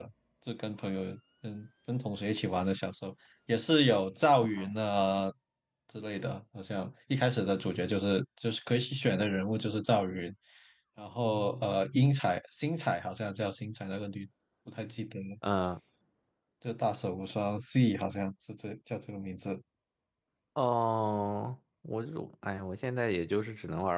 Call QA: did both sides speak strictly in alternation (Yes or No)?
Yes